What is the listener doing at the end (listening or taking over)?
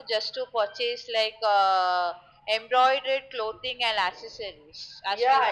taking over